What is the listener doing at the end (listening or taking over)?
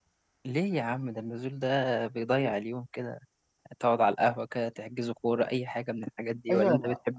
taking over